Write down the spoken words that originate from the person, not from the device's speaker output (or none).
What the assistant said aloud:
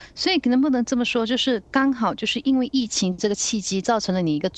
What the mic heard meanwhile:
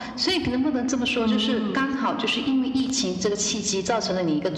嗯，